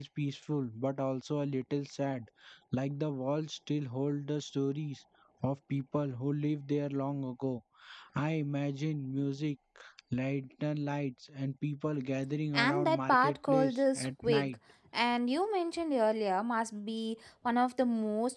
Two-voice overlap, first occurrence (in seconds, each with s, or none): 12.5 s